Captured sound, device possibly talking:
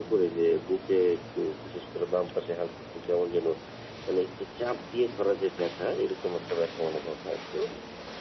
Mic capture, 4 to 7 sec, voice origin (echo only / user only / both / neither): echo only